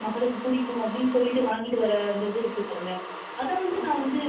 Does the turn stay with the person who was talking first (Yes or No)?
Yes